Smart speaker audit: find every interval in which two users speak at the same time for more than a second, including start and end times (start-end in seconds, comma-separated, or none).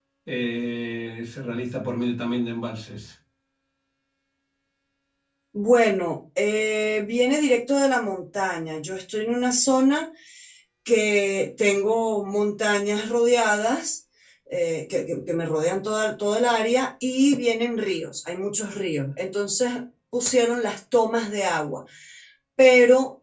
none